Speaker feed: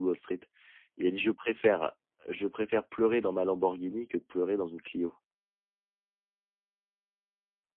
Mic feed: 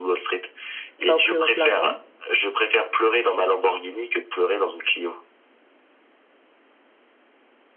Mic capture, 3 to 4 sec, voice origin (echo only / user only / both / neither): echo only